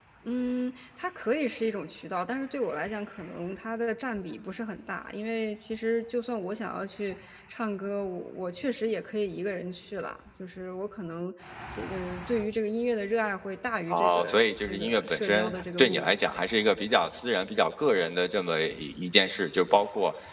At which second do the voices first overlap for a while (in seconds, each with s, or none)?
13.9 s